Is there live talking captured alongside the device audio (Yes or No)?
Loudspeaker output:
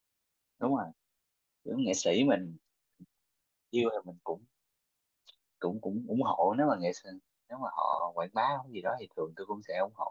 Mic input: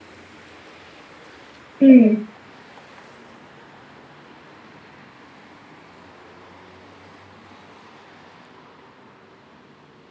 Yes